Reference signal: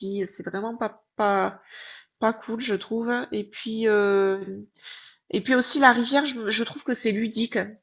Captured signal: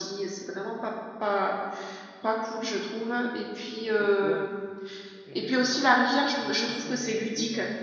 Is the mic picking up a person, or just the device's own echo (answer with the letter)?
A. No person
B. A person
B